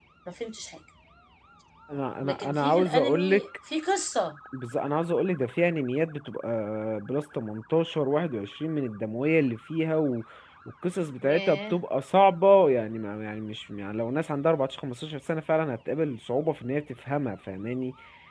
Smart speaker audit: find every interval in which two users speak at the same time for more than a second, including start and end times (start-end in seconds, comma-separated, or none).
2.2-3.5